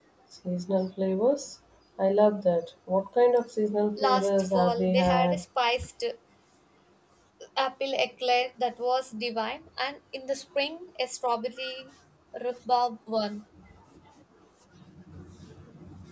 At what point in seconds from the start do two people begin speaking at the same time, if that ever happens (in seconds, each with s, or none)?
4.0 s